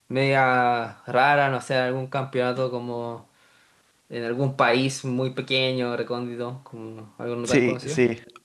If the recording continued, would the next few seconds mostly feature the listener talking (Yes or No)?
Yes